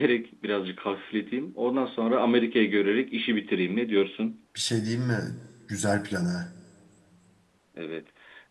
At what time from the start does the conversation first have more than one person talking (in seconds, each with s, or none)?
none